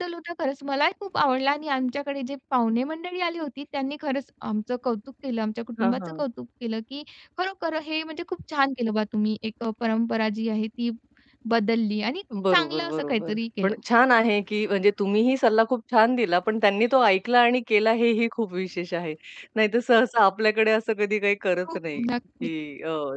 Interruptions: present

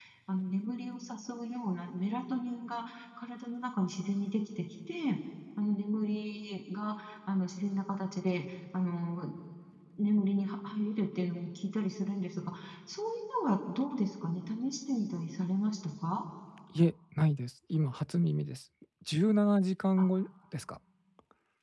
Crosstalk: none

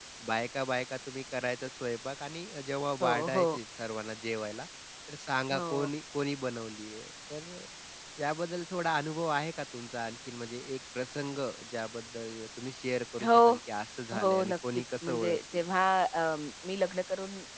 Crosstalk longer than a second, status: present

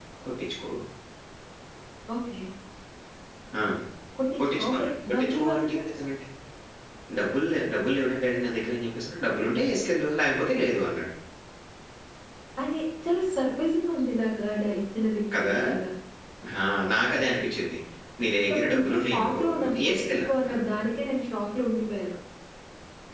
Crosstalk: present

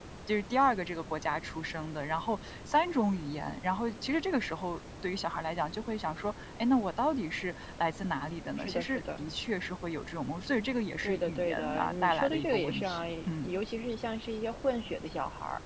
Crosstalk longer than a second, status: present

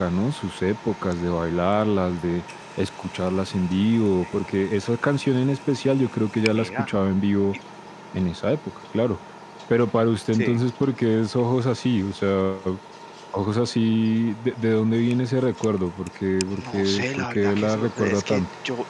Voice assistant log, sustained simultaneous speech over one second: present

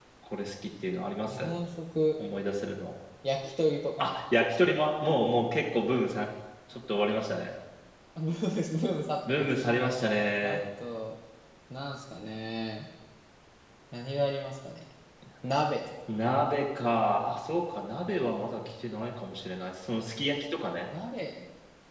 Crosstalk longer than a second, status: none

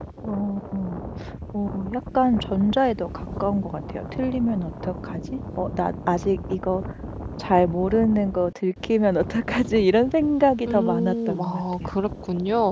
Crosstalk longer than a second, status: present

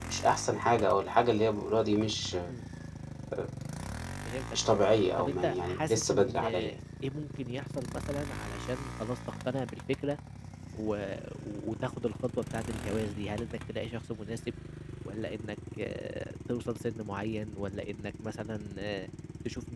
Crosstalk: present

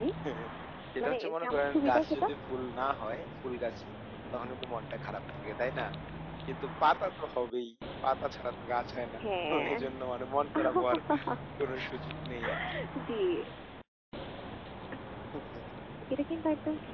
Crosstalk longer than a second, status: present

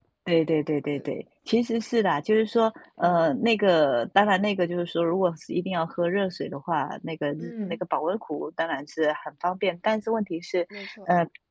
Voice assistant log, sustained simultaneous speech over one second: none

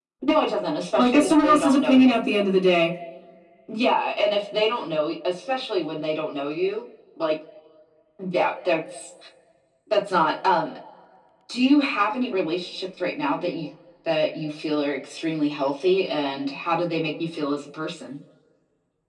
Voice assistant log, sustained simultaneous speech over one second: present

